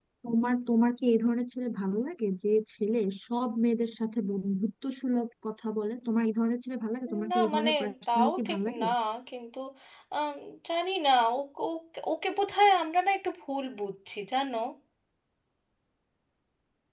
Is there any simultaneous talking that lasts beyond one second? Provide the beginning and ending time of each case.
7.3-8.8

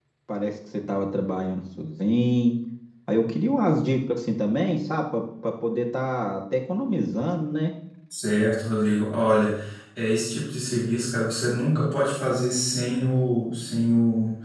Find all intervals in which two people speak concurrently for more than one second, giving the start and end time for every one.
none

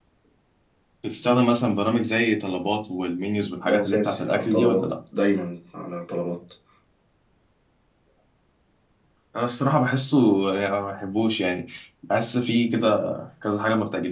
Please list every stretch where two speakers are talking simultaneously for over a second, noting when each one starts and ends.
3.6-4.8

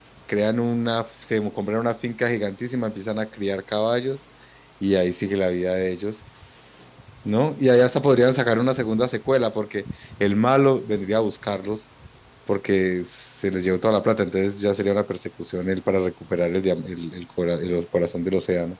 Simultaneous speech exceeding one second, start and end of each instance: none

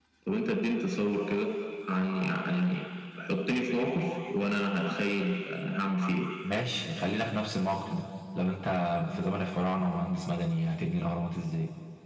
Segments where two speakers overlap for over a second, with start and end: none

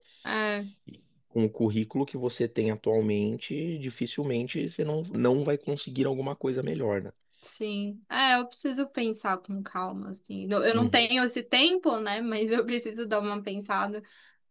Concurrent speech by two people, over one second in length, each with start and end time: none

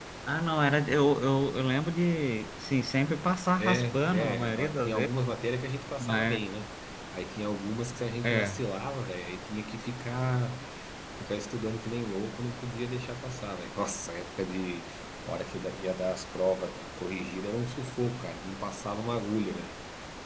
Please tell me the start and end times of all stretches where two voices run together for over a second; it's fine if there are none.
3.6-5.1

